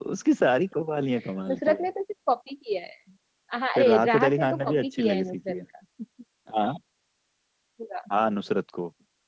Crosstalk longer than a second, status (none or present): present